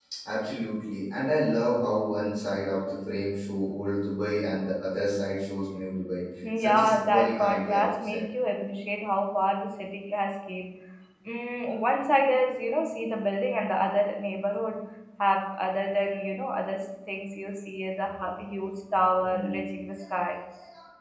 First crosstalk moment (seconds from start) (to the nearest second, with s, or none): 6 s